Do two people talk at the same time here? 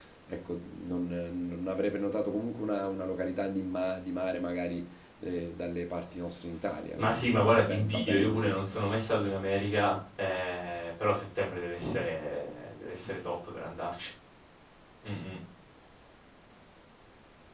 Yes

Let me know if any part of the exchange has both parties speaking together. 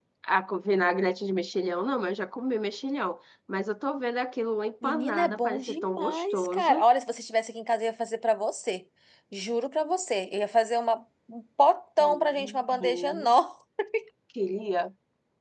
Yes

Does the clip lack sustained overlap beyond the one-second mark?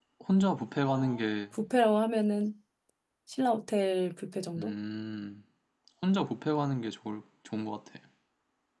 Yes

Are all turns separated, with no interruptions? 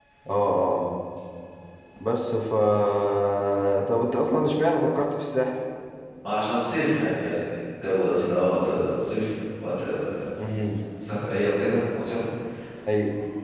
Yes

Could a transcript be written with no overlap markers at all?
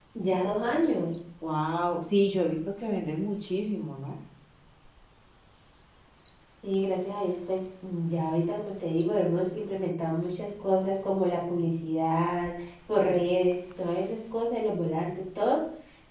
Yes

